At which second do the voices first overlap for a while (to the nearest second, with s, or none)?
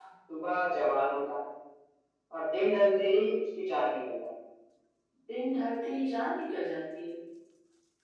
none